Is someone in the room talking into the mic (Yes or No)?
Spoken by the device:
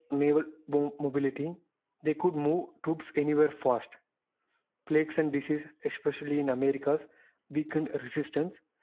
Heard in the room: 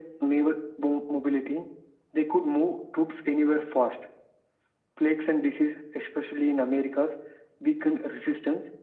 No